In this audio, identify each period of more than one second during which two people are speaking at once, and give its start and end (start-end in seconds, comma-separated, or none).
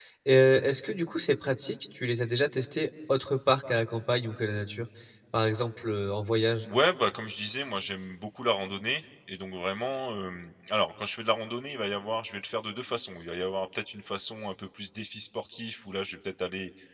none